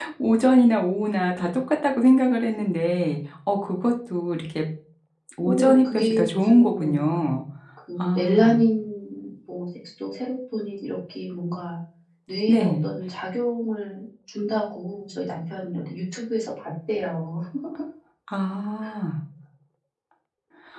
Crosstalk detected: Yes, from 5.4 s

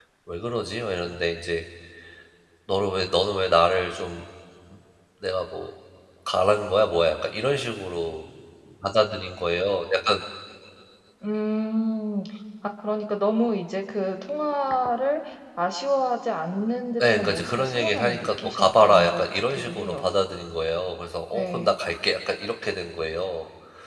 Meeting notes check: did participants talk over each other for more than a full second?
Yes, from 17.0 s

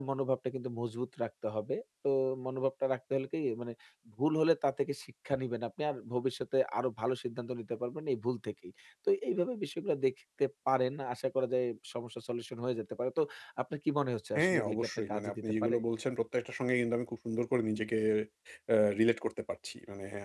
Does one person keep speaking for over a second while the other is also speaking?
Yes, from 14.3 s

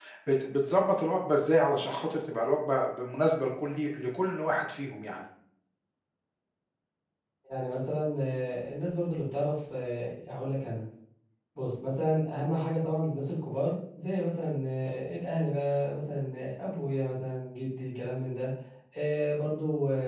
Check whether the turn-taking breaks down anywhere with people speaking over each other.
No

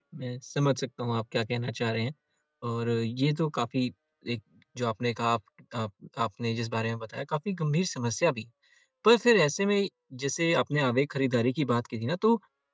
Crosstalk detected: No

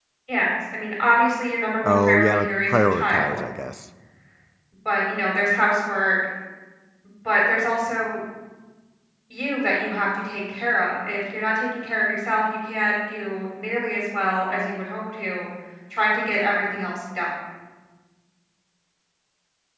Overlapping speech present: Yes, from 1.8 s

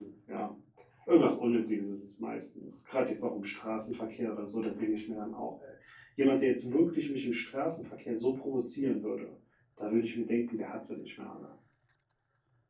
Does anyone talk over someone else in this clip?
No

